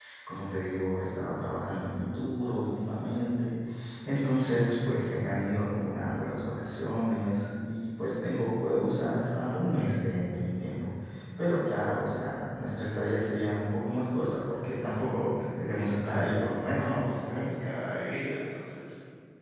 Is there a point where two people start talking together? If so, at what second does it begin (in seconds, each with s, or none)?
15.7 s